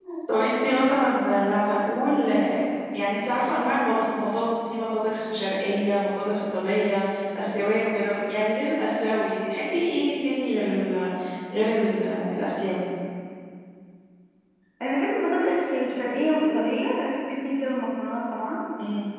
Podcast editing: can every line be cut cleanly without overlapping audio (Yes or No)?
Yes